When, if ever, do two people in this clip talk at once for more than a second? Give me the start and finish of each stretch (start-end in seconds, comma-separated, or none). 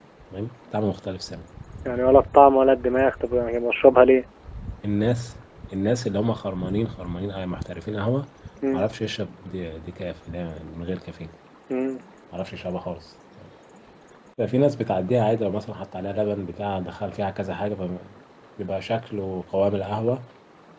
none